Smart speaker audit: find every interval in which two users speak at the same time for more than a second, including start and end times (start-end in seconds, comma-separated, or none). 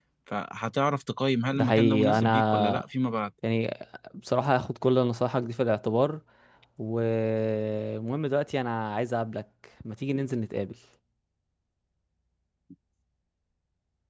1.6-2.8